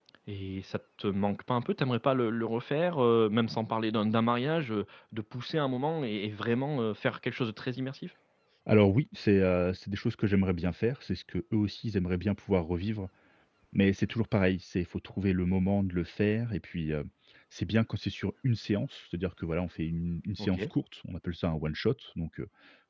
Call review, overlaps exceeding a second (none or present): none